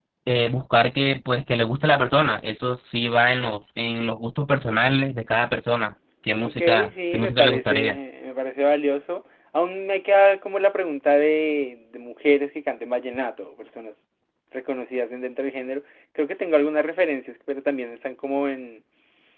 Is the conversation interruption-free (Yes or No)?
No